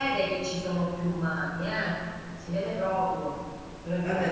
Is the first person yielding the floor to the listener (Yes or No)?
Yes